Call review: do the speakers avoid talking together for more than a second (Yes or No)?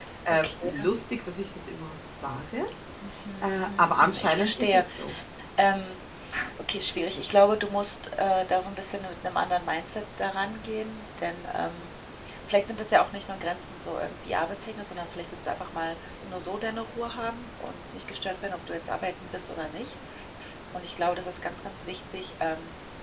No